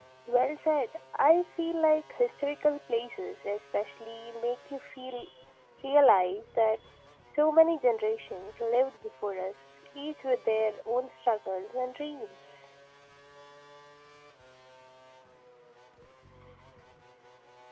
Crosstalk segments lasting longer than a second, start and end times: none

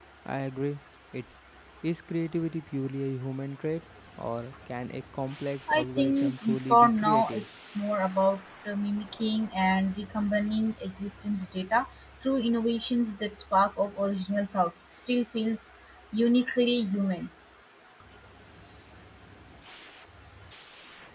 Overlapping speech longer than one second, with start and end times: 5.7-7.4

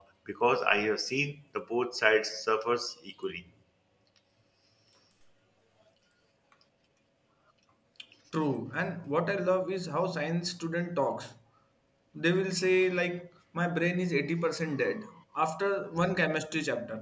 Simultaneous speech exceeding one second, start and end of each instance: none

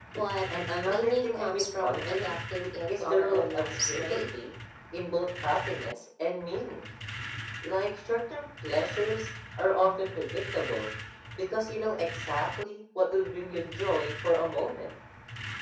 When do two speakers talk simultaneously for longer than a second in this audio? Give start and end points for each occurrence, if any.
0.8-2.3, 3.0-4.3

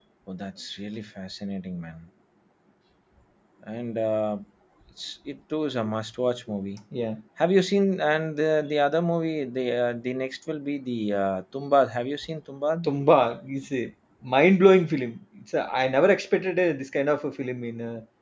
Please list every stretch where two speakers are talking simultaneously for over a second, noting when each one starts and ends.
none

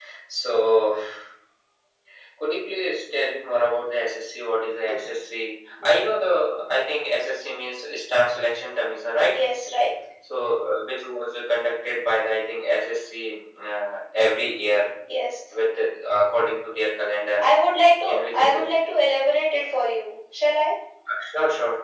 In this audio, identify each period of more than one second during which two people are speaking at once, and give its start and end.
none

